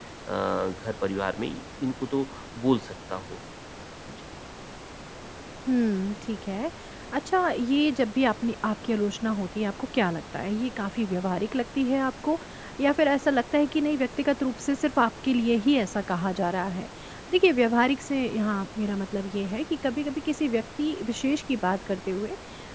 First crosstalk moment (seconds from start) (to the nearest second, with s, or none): none